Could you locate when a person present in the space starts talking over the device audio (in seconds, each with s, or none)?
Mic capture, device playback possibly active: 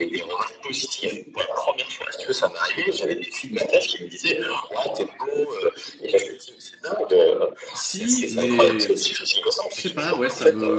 7.7 s